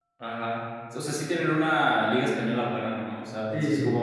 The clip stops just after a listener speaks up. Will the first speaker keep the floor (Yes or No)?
No